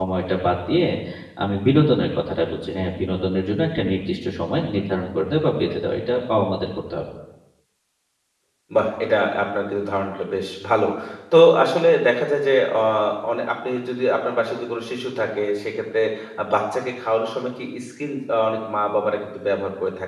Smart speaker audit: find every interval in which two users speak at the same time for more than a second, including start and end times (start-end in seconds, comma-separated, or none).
none